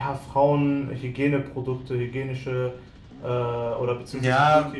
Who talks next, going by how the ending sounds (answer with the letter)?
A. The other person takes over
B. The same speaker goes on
A